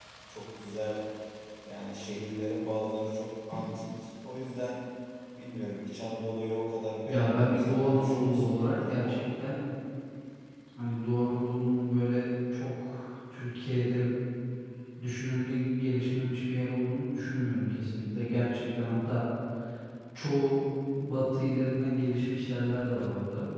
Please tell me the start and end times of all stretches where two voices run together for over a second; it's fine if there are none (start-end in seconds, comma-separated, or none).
7.0-9.2